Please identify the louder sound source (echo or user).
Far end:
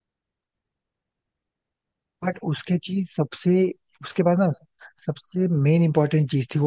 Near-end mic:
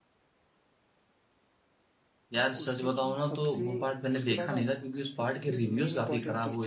user